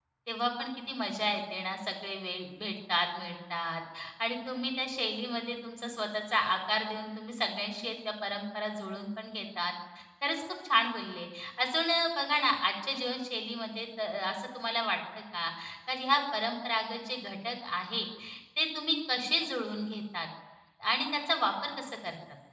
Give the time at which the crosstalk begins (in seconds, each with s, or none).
none